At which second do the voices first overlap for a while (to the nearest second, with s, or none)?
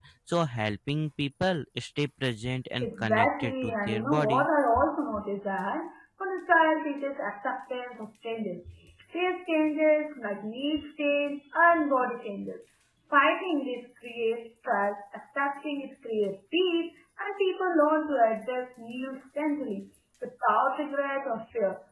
3 s